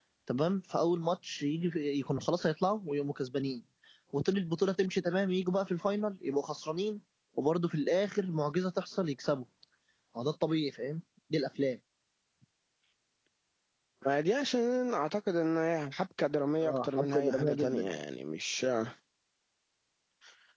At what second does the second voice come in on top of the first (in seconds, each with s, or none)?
16.6 s